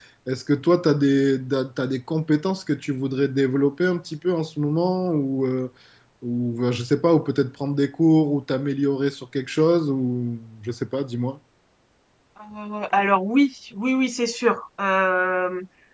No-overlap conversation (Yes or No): Yes